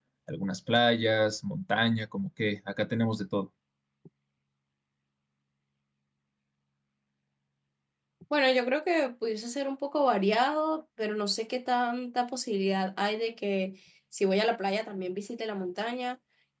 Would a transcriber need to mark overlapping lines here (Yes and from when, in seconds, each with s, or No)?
No